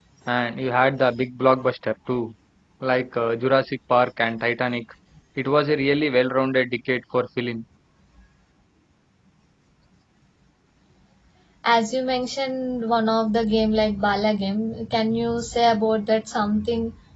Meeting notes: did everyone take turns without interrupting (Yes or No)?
Yes